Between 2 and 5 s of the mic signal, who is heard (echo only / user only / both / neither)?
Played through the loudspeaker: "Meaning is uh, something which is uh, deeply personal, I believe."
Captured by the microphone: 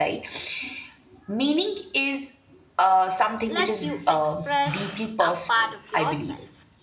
both